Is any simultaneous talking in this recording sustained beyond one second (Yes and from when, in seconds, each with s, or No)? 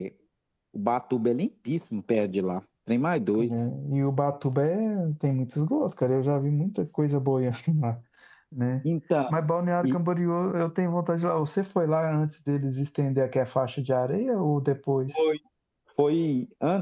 No